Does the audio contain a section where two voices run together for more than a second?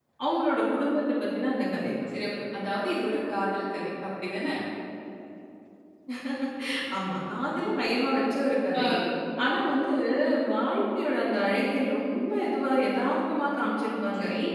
No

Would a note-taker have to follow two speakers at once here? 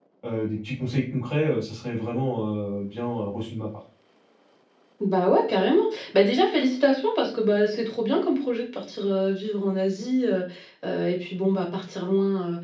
No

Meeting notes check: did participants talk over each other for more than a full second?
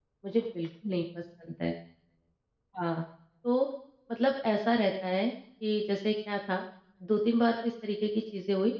No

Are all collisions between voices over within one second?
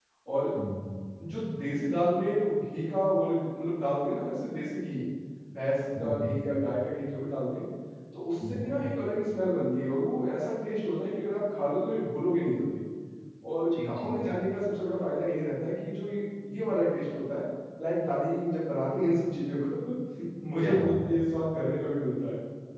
Yes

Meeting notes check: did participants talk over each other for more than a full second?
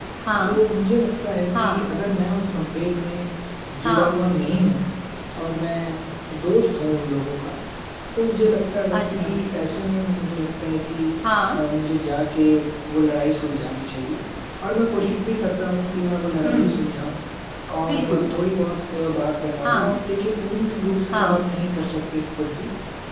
No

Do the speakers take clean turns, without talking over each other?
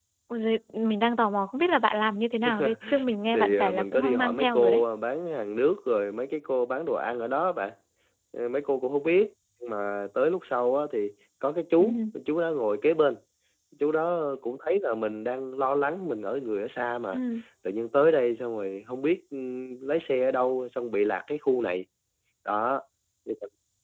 No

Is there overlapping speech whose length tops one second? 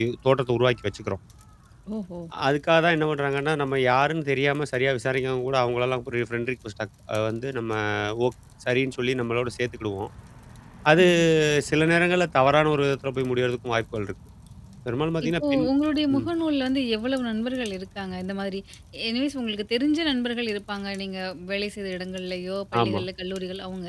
No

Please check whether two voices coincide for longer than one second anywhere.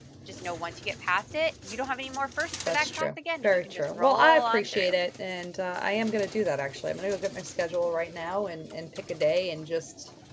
Yes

